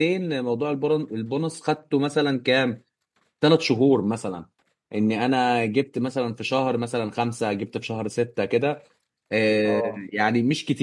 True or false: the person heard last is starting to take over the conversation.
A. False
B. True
A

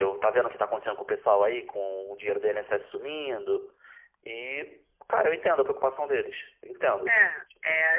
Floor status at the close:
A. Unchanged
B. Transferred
B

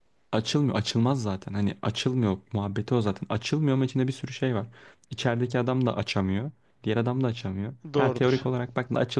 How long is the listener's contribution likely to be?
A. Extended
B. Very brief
B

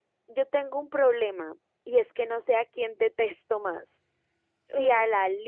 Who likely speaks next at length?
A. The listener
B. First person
B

